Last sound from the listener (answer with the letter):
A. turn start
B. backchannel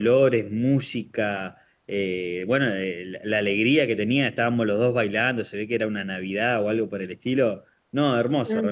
A